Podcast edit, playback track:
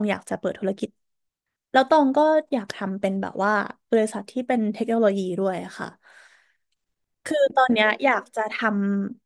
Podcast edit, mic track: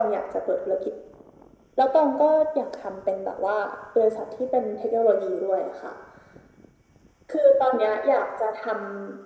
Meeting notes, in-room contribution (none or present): none